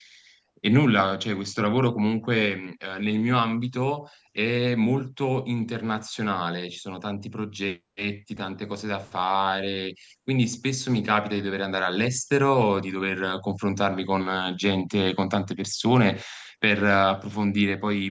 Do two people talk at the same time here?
No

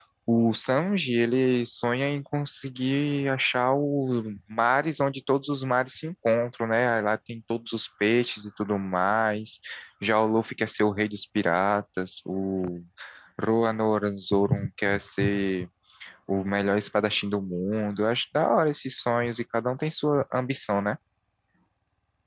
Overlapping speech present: No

